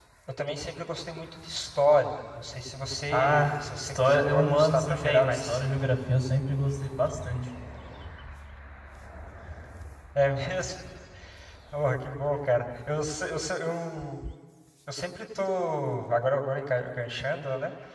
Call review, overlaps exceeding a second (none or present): present